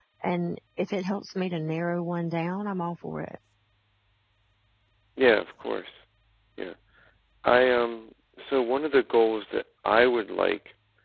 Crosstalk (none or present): none